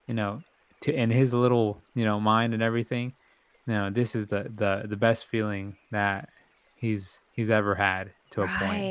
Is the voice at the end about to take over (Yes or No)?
Yes